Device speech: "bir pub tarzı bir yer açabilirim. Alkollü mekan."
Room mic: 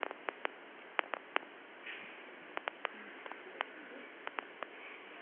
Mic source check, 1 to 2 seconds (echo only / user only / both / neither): neither